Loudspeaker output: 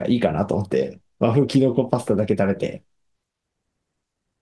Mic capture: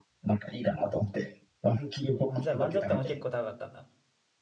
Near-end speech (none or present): present